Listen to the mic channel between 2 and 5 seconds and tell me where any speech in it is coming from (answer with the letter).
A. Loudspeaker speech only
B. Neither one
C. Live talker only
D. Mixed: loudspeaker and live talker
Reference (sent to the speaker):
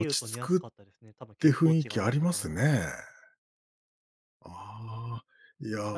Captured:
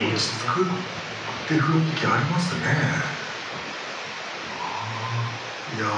A